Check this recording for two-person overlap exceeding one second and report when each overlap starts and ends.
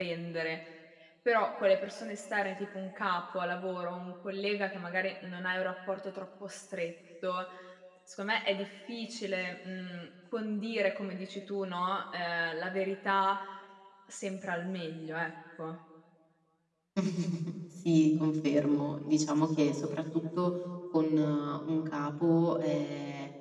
none

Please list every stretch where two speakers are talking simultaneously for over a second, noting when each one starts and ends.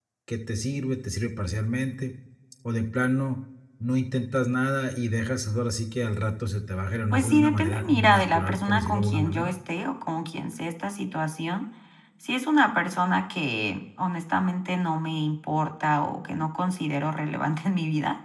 7.1-9.6

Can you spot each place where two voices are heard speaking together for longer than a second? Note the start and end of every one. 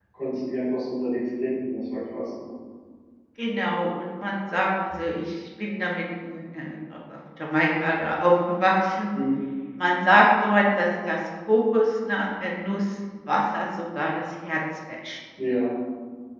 none

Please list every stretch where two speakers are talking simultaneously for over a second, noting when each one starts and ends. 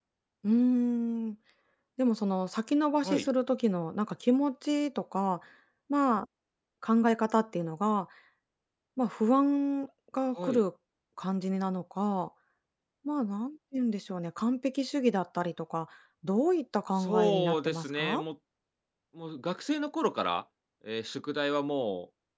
16.9-18.2

